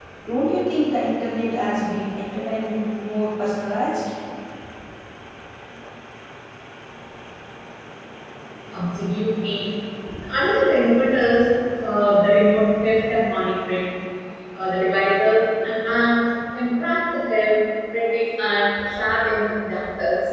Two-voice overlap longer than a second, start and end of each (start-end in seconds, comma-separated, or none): none